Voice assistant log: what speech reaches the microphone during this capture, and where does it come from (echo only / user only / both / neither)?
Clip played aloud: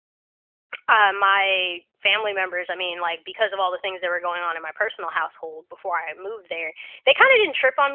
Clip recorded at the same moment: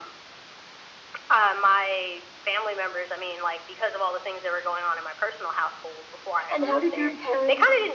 both